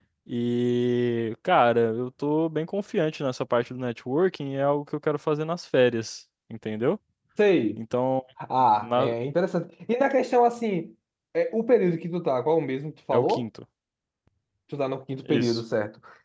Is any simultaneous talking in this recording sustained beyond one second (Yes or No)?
No